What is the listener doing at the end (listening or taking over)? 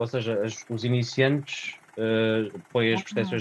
listening